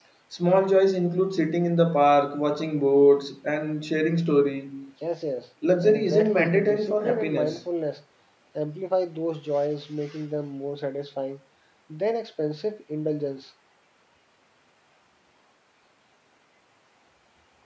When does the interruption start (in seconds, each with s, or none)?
5.8 s